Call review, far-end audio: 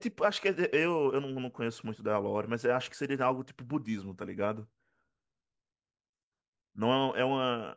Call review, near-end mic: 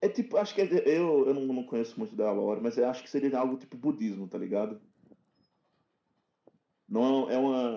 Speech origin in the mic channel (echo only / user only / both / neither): echo only